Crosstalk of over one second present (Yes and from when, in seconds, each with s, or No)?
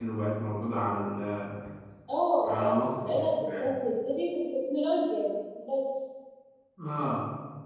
Yes, from 2.4 s